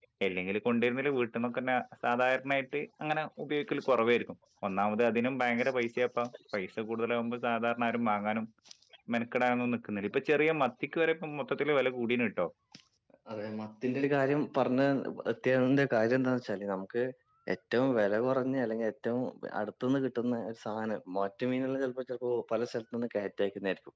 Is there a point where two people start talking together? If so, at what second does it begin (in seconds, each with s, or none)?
none